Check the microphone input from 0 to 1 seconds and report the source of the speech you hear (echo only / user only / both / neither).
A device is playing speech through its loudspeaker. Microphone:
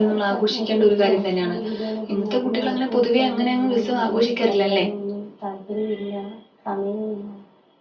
echo only